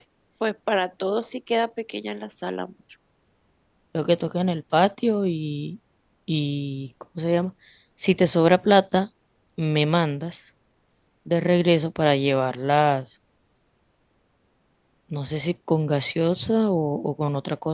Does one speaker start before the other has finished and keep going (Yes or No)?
No